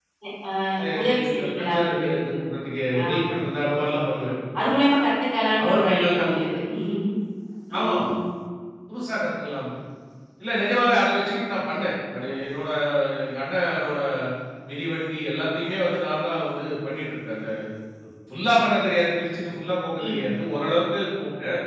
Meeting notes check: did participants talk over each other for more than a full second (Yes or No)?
Yes